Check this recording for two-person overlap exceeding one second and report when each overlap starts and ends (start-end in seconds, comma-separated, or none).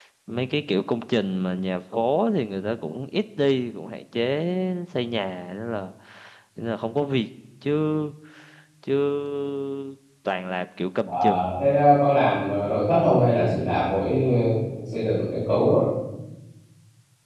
none